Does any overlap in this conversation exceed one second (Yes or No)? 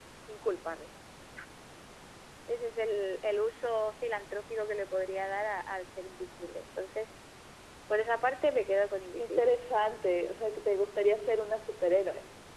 No